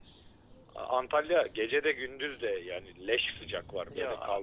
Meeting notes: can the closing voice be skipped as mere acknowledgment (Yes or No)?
No